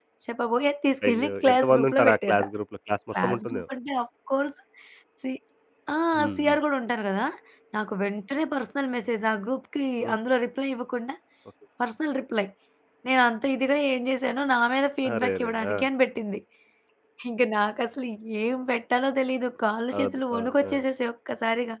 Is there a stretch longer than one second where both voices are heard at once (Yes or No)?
Yes